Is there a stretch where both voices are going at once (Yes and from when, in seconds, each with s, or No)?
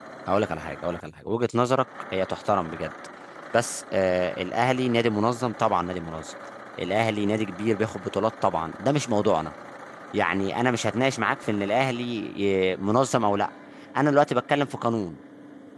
No